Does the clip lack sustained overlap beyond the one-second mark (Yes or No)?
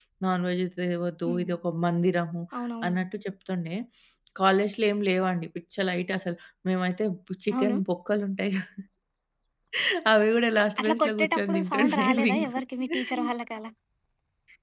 No